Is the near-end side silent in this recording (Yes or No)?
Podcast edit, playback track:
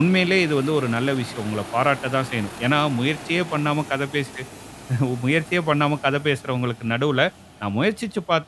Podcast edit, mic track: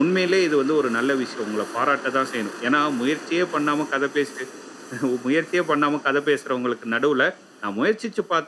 Yes